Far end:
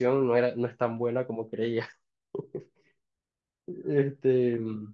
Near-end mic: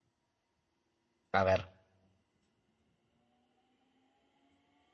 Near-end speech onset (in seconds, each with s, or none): 1.4 s